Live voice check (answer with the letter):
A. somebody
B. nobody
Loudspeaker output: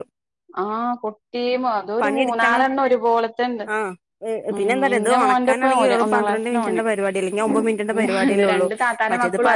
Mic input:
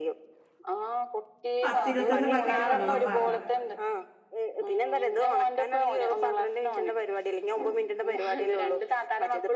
A